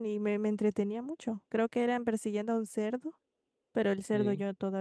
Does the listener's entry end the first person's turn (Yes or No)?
No